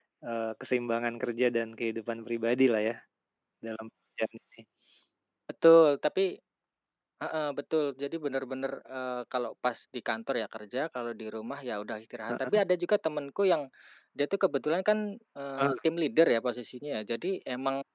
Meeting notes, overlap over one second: none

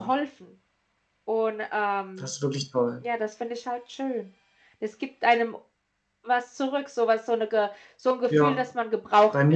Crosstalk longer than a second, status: none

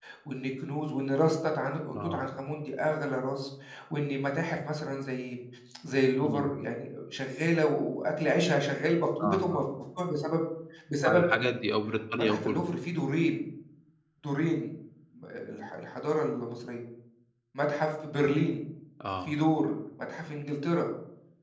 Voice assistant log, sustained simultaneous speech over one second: none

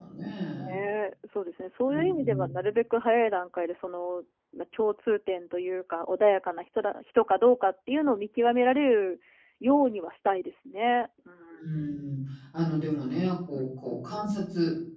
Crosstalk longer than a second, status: none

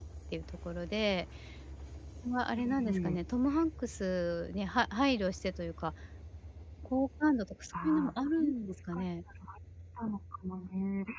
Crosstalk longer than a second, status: present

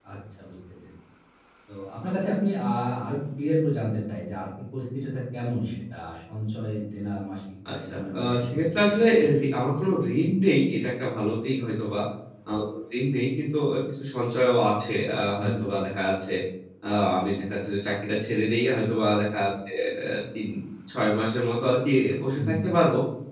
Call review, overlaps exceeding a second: present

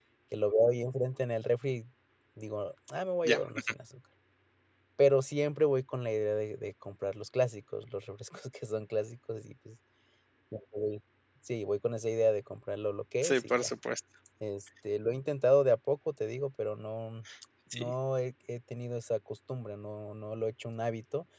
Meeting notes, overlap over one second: none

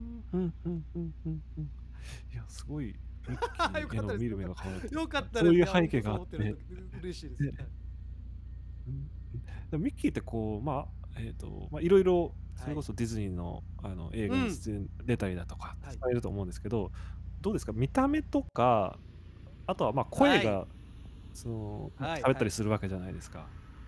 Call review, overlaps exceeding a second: present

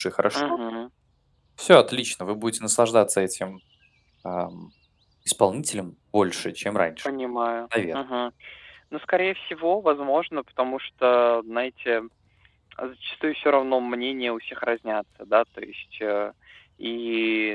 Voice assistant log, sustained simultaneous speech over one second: none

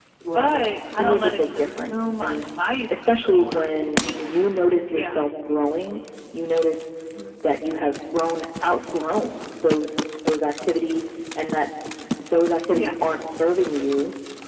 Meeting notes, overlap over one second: present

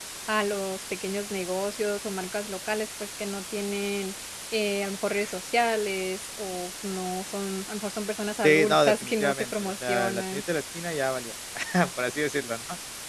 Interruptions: present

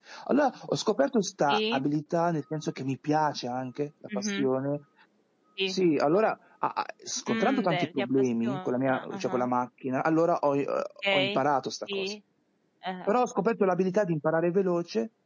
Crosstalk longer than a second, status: present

